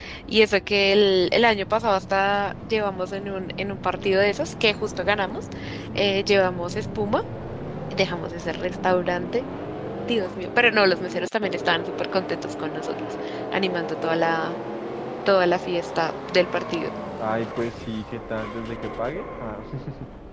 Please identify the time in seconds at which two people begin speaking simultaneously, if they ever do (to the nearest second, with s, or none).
none